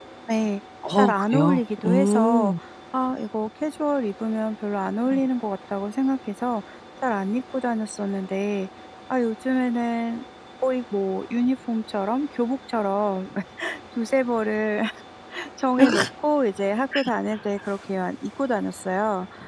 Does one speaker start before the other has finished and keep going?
Yes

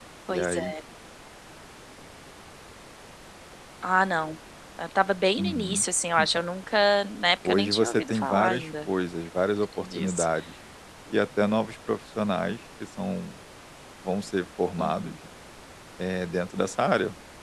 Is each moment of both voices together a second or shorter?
No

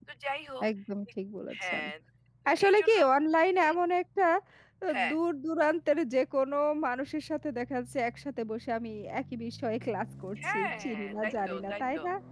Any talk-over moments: Yes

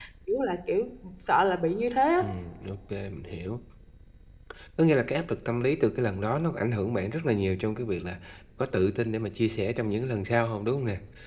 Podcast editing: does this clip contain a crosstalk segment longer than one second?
No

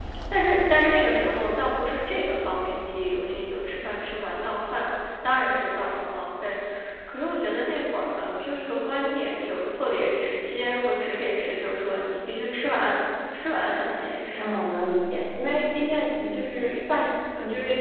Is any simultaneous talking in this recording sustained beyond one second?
No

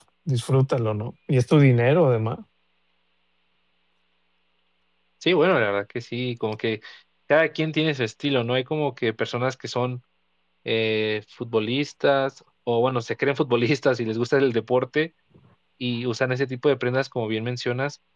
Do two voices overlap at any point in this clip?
No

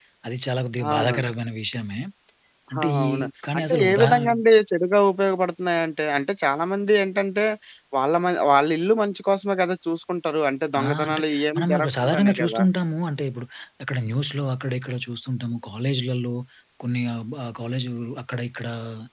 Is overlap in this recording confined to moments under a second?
No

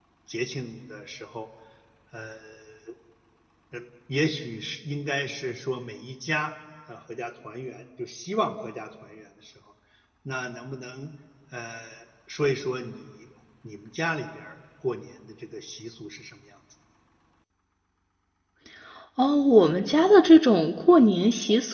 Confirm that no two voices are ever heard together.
Yes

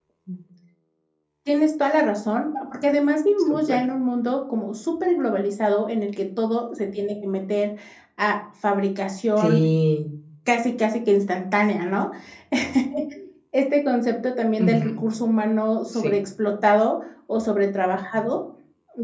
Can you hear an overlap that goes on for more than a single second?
No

